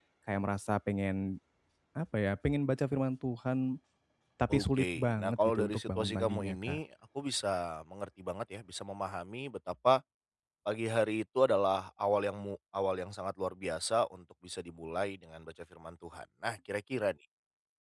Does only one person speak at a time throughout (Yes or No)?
No